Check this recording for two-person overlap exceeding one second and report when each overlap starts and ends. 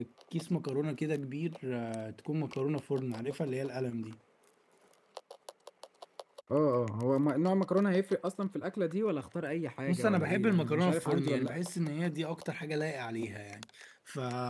9.9-11.6

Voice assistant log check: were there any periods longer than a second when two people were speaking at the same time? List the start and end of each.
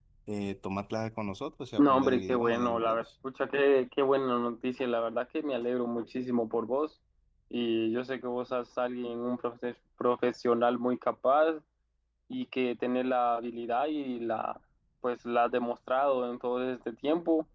1.8-3.0

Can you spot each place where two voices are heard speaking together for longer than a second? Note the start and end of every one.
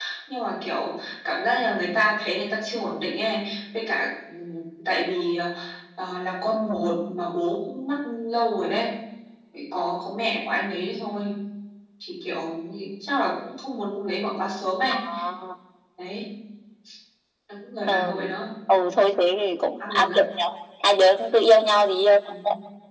none

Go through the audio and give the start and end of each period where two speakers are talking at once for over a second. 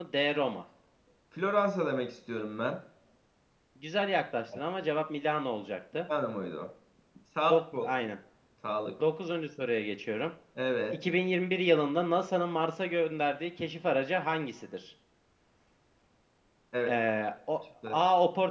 none

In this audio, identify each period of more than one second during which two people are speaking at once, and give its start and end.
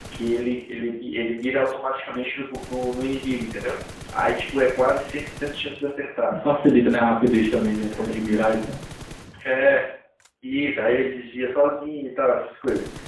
none

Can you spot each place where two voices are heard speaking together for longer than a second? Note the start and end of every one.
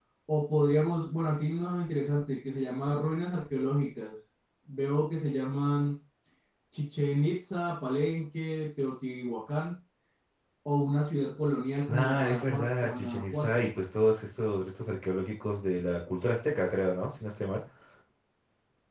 11.9-13.7

